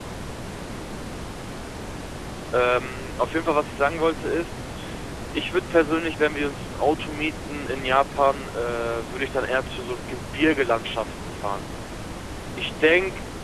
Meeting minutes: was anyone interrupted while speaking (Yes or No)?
No